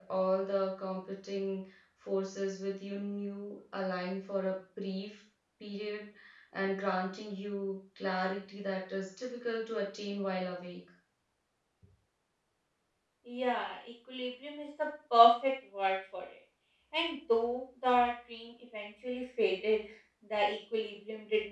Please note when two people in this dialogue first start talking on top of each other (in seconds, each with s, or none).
none